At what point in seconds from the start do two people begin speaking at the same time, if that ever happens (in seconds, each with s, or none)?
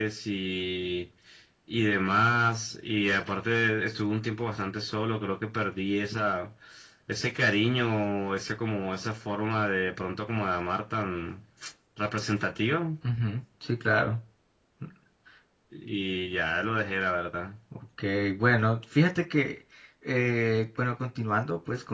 none